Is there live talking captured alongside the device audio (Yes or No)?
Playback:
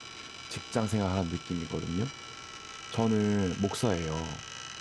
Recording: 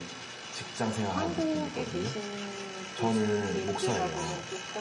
Yes